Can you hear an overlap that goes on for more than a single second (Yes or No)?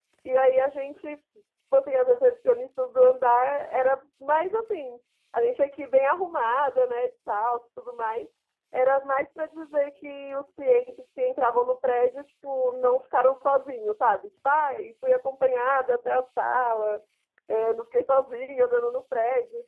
No